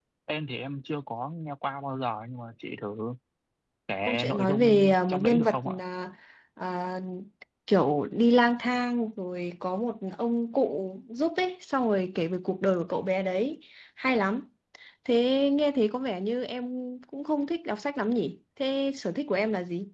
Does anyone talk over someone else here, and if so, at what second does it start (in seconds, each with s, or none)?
4.0 s